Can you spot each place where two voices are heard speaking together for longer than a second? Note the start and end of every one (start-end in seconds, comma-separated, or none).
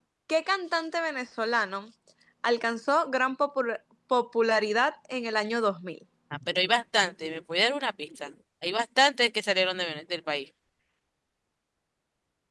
none